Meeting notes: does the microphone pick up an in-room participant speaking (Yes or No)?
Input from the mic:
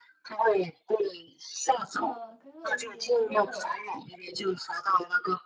Yes